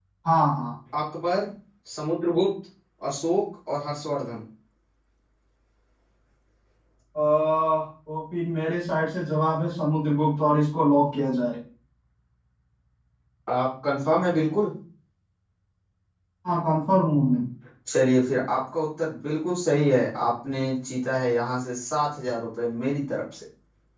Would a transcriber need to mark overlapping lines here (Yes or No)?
No